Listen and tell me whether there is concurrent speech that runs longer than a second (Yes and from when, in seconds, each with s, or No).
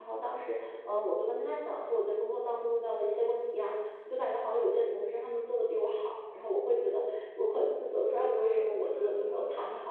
Yes, from 8.1 s